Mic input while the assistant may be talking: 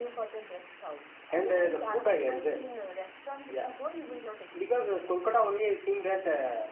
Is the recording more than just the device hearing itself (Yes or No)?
No